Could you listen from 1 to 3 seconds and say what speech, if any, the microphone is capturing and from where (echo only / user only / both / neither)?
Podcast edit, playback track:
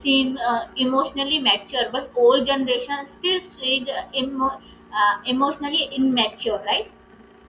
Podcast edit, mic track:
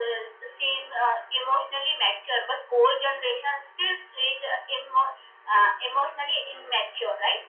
echo only